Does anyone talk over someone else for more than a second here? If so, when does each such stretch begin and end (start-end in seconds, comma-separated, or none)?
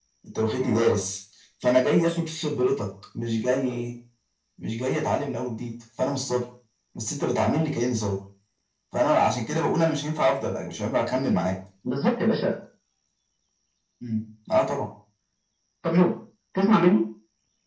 none